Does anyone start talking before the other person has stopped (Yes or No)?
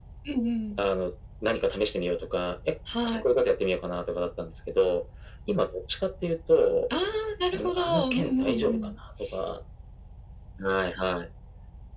Yes